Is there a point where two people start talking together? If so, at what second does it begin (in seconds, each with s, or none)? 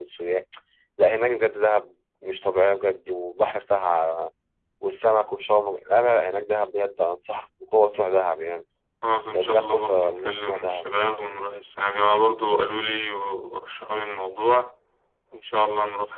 9.3 s